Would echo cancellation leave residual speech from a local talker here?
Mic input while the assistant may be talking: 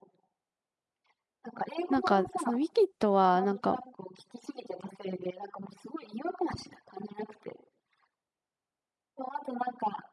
Yes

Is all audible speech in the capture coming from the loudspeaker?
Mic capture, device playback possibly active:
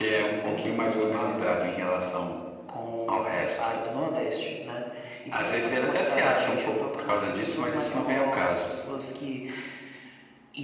Yes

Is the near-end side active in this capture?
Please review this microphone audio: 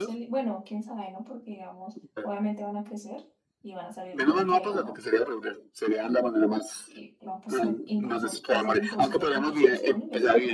Yes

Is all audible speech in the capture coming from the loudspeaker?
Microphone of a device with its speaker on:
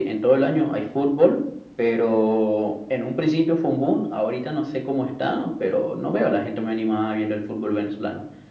Yes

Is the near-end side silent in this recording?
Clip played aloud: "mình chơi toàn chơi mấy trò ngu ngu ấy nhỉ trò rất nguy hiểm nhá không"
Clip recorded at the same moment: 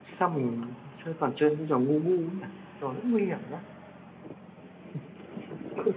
Yes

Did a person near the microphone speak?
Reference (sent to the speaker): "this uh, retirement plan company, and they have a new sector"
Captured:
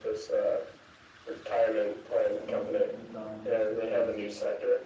Yes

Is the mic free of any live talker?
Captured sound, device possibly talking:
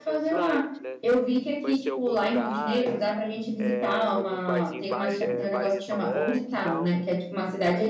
No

